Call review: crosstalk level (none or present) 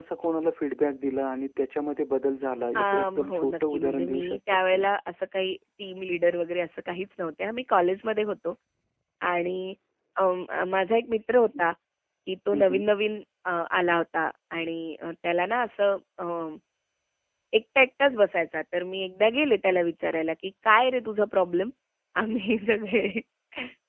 present